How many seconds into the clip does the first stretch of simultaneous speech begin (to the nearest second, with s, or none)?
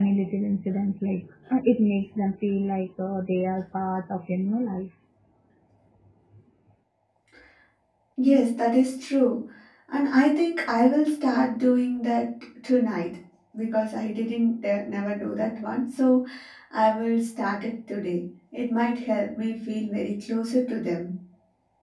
none